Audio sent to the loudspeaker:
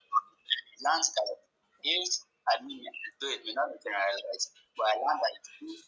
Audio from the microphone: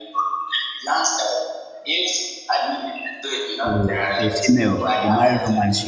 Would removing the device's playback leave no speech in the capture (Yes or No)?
No